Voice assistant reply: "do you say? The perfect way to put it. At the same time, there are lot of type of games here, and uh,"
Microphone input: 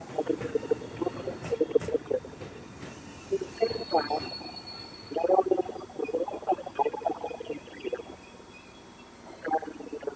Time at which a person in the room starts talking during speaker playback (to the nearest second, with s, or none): none